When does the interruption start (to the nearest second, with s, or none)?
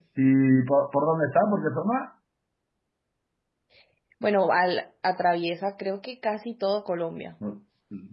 none